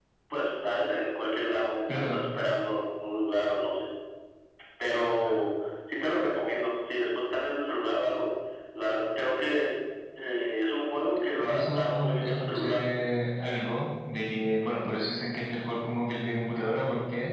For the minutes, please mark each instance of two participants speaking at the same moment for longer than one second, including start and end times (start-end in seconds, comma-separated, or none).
11.4-12.8